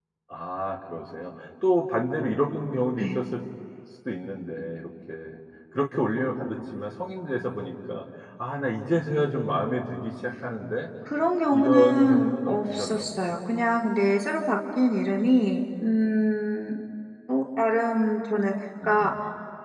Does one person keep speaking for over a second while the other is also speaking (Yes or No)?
Yes